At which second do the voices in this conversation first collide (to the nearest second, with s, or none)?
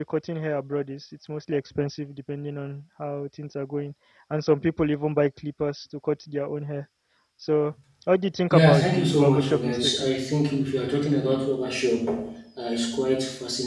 9 s